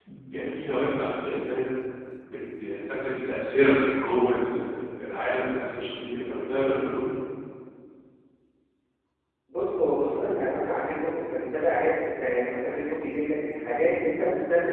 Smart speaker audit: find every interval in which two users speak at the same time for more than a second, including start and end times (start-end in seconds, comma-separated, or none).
none